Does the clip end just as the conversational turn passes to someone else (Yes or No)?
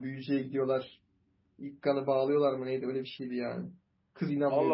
Yes